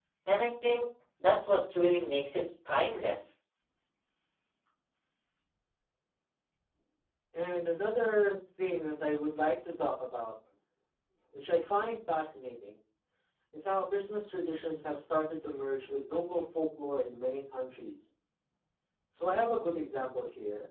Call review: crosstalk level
none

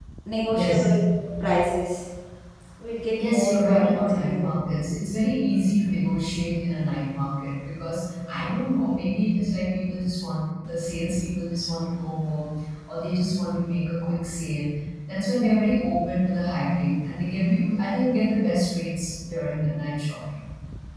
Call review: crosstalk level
present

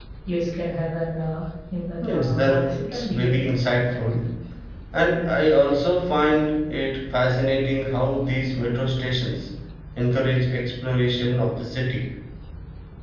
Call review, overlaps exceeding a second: present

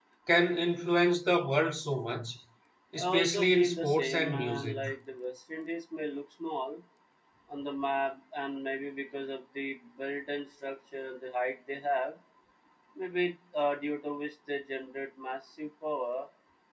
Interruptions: present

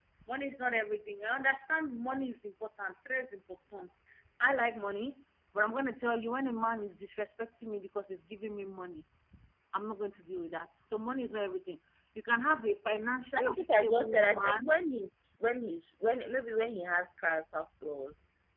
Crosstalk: present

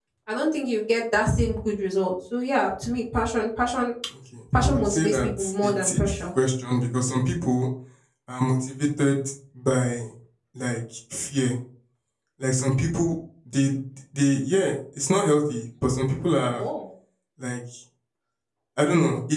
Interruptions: present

